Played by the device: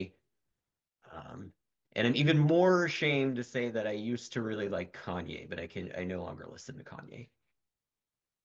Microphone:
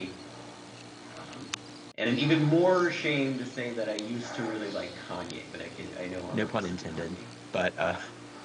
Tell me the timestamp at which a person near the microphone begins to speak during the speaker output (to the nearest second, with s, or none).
6 s